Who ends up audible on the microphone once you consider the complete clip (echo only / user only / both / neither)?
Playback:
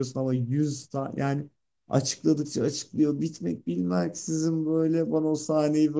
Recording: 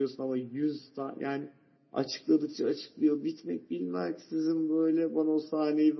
echo only